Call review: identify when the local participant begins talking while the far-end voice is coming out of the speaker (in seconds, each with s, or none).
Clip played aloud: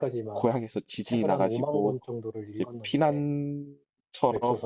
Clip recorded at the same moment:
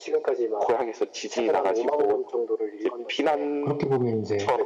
3.6 s